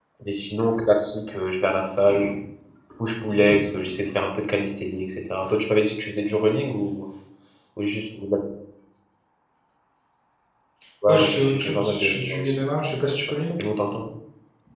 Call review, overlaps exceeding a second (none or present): present